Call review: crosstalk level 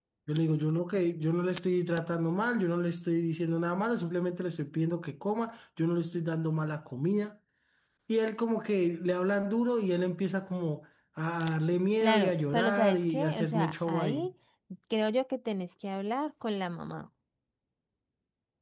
present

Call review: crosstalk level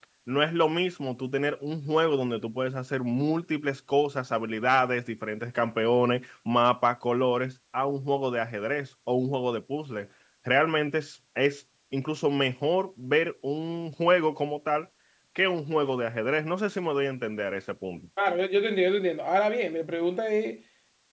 none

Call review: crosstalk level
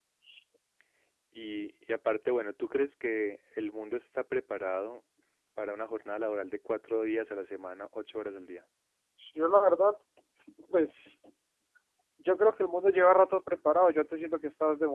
none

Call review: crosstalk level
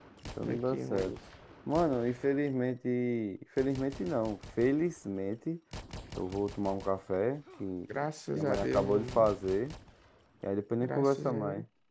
present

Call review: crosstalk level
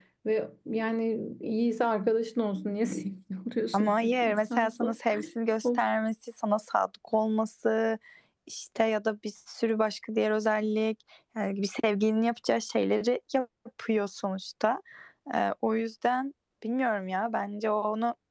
present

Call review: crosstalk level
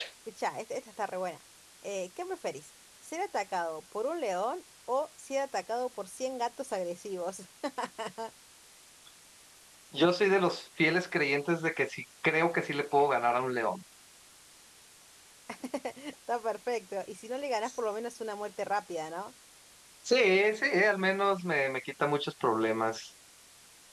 none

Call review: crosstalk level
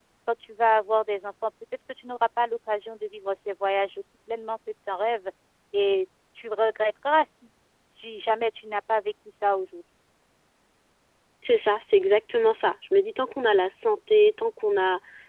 none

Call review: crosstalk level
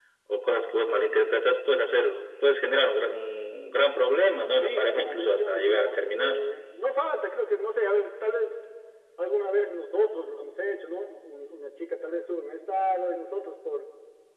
present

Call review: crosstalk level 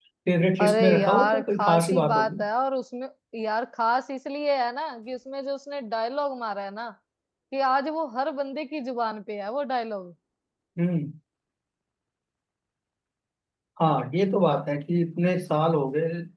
present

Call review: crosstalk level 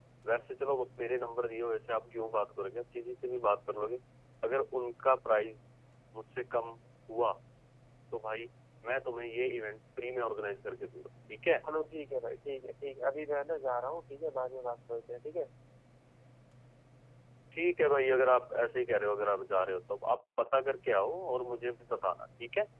none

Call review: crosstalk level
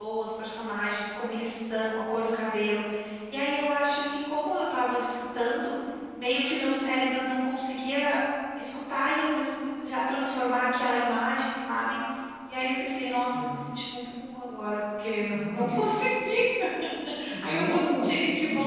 present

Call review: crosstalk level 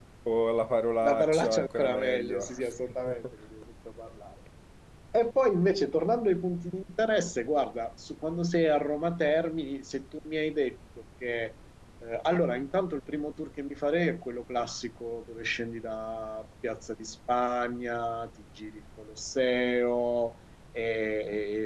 present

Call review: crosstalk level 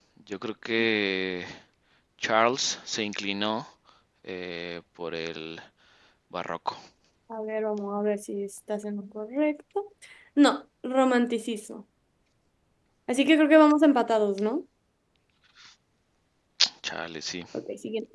none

